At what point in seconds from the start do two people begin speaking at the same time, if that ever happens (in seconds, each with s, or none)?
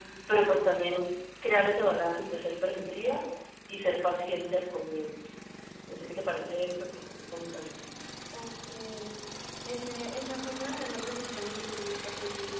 none